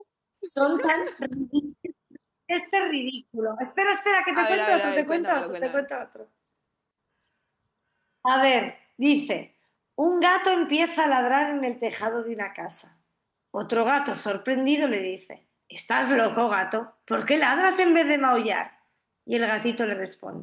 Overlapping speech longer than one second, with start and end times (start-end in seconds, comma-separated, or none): 4.3-5.8